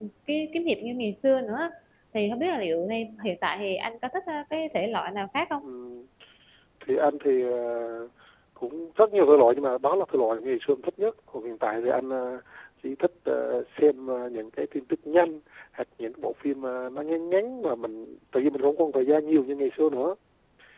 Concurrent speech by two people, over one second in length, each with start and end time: none

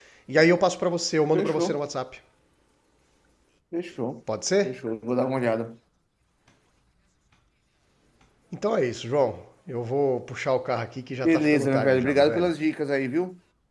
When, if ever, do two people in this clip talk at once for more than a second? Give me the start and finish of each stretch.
11.2-12.5

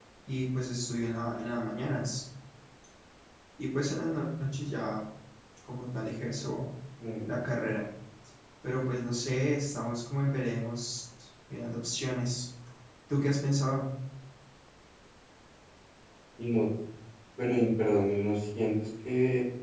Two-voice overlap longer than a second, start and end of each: none

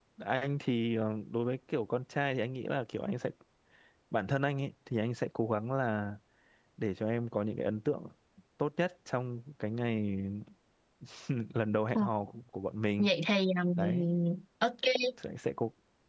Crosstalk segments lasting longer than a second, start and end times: none

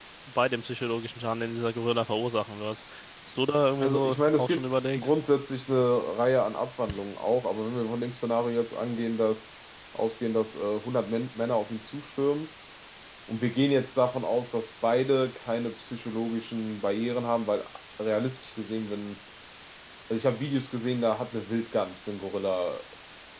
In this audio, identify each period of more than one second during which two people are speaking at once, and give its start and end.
3.8-5.1

